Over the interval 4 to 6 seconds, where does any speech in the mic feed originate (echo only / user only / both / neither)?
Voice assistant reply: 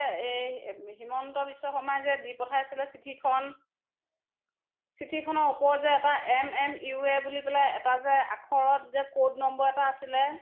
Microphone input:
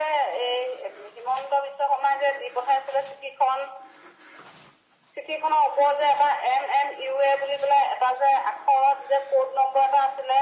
echo only